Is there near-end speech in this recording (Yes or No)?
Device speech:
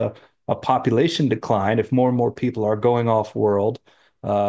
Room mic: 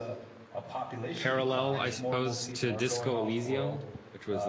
Yes